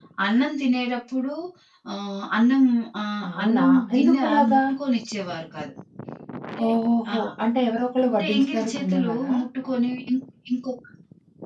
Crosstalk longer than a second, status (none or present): present